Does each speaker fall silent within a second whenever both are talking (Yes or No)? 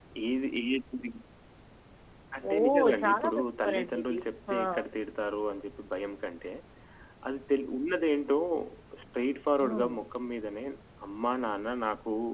No